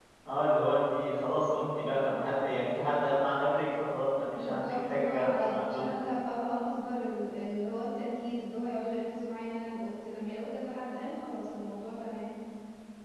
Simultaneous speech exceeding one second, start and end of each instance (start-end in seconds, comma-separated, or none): 4.3-5.9